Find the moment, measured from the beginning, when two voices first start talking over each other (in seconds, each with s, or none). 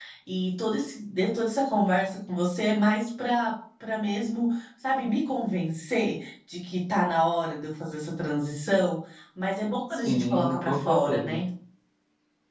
10.0 s